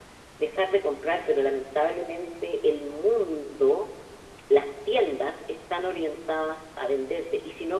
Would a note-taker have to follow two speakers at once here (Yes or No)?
No